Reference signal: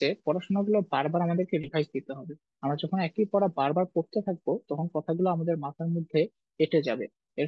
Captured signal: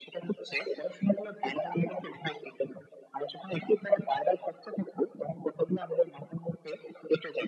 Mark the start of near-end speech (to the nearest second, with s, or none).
none